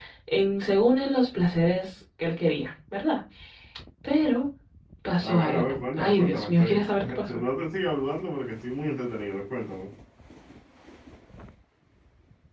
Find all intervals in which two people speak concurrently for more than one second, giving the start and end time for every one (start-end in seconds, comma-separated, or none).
5.2-7.4